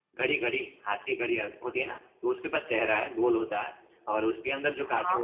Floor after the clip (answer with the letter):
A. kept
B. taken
A